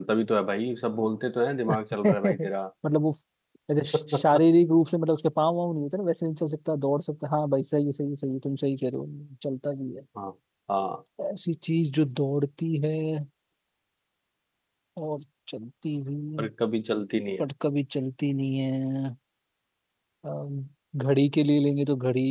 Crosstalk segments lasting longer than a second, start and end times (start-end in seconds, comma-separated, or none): none